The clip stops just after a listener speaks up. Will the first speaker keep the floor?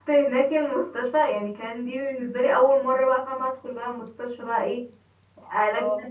Yes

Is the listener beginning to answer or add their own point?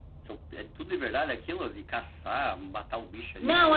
Yes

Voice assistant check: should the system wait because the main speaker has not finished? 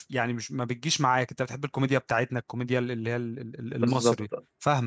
No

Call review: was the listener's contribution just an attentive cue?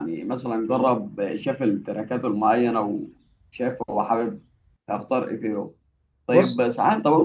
Yes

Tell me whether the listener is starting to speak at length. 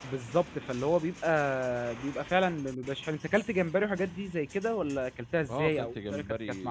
Yes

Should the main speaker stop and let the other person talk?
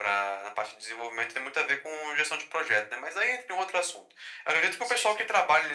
No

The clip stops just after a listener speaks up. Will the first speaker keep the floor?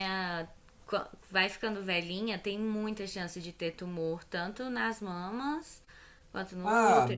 No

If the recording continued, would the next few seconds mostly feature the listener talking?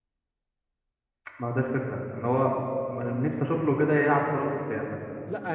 Yes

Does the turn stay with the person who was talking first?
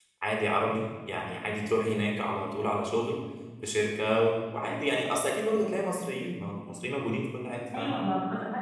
No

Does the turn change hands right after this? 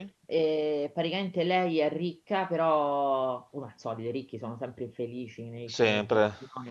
No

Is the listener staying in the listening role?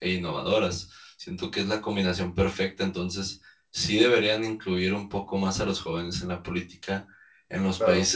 Yes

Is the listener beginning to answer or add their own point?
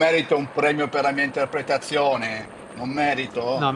Yes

